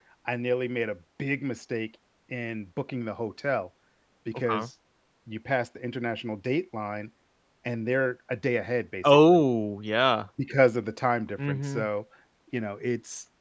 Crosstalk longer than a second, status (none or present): none